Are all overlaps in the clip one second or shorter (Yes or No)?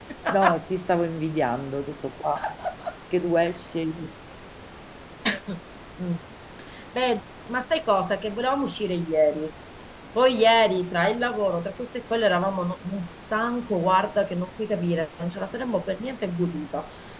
Yes